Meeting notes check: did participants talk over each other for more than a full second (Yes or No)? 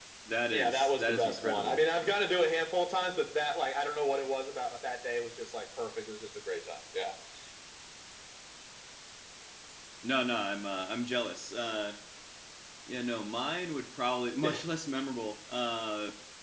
Yes